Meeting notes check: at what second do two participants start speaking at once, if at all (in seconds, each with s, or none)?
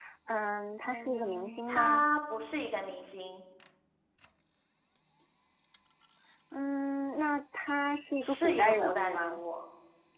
0.8 s